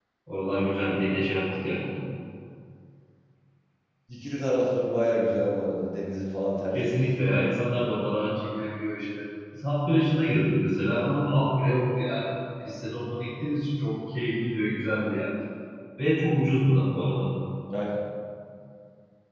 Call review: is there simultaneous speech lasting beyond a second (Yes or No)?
No